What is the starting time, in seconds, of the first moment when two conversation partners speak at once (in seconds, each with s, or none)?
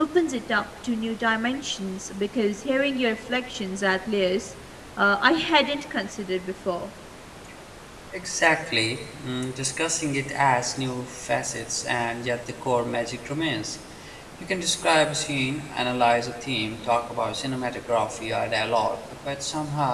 none